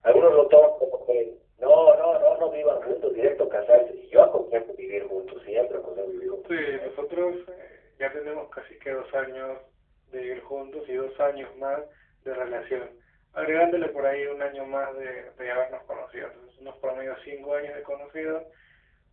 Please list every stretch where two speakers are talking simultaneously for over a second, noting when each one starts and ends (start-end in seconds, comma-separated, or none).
none